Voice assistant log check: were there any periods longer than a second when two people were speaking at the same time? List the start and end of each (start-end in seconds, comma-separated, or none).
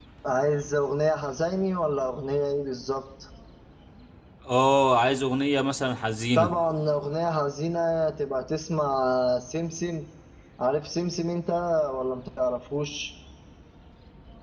none